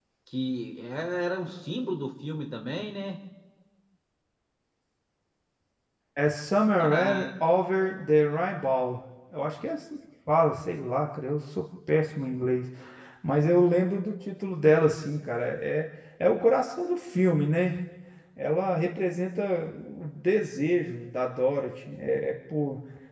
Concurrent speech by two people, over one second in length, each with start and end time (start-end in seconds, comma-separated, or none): none